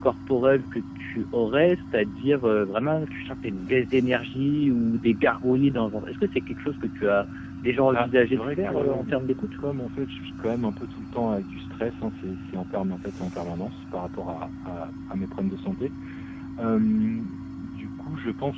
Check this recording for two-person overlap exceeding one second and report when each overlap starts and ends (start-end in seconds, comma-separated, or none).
7.8-9.1